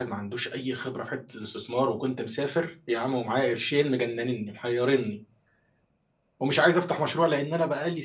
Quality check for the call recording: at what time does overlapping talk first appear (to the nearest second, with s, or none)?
none